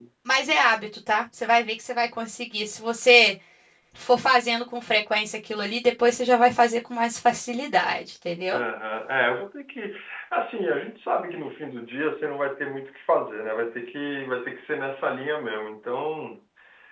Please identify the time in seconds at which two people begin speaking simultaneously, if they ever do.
none

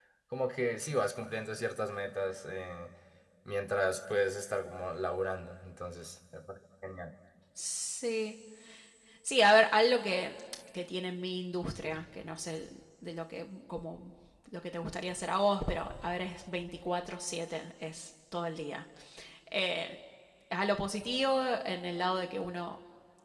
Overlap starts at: none

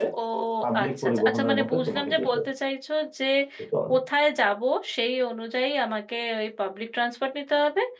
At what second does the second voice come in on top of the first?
0.8 s

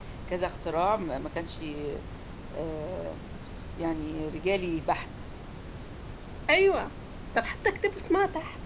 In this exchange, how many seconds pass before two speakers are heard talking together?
none

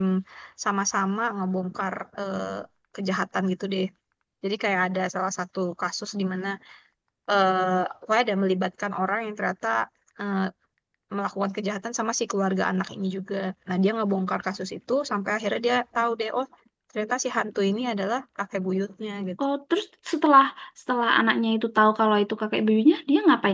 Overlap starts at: none

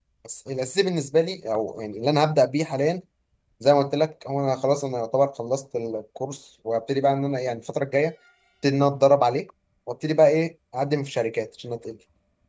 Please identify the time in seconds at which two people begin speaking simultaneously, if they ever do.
none

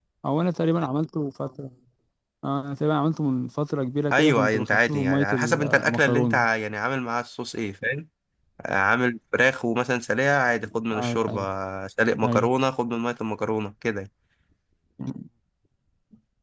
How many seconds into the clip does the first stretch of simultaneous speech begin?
4.1 s

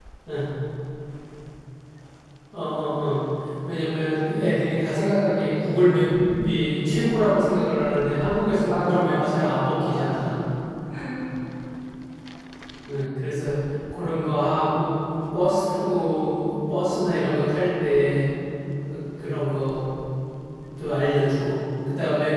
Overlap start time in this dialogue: 8.7 s

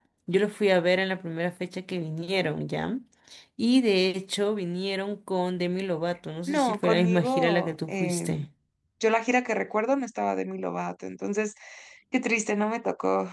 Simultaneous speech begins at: 6.5 s

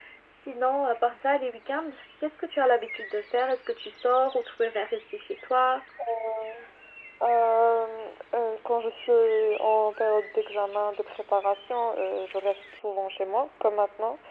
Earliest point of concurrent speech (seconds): none

